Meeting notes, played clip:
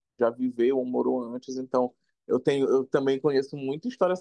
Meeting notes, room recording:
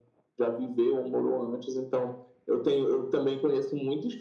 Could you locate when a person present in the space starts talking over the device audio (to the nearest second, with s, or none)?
none